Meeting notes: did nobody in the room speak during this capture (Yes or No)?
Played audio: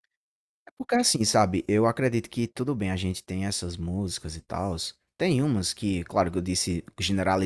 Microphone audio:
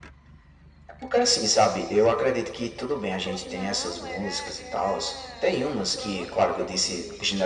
No